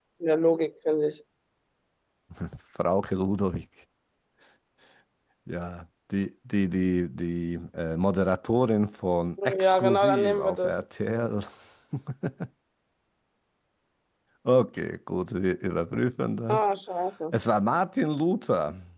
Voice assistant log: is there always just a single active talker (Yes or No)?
No